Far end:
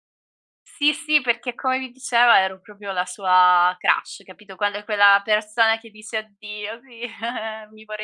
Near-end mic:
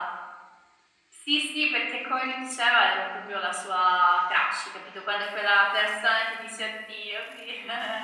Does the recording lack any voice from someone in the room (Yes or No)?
Yes